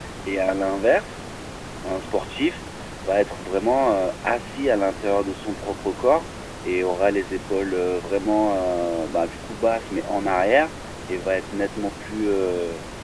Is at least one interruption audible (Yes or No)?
No